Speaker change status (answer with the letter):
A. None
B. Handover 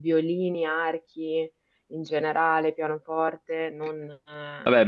B